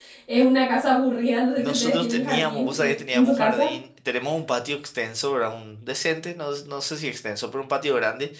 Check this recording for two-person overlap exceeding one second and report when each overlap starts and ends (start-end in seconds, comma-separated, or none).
1.6-3.7